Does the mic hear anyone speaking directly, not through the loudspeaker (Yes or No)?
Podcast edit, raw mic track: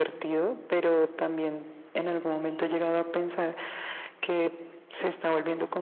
No